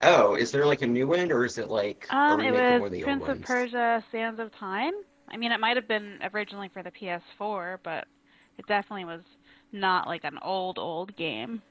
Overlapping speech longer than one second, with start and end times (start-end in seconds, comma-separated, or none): 2.3-3.5